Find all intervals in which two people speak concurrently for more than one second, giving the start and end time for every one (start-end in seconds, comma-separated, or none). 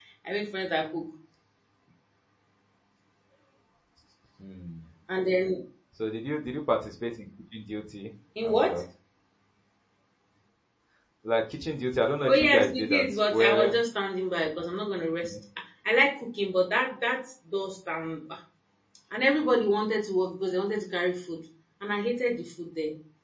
12.3-13.7